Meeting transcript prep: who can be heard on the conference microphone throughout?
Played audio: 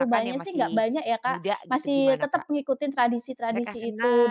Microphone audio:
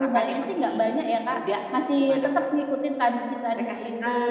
echo only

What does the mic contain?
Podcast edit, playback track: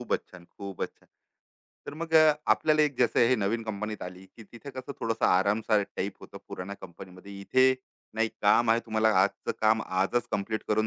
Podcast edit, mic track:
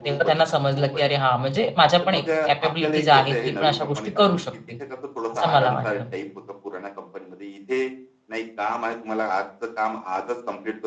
both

